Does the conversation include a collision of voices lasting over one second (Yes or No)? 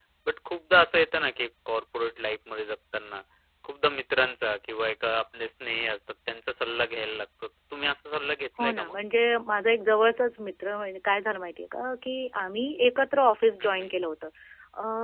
No